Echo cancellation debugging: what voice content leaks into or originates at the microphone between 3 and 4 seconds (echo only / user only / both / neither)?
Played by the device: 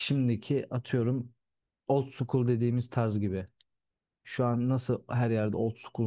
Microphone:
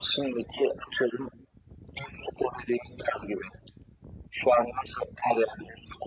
echo only